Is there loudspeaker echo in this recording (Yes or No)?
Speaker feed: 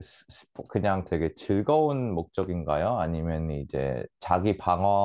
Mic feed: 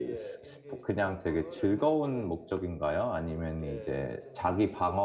Yes